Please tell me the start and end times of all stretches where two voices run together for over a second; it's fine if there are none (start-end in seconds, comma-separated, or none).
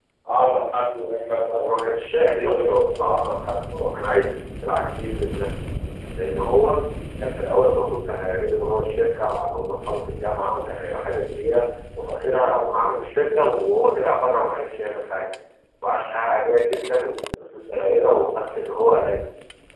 1.5-3.2